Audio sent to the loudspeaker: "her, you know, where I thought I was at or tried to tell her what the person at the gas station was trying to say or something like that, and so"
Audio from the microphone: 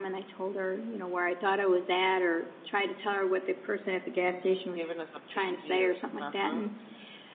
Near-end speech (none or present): present